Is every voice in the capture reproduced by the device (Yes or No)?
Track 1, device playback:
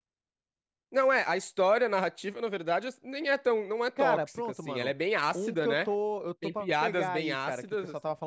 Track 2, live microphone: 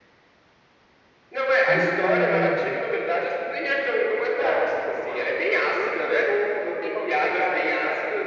No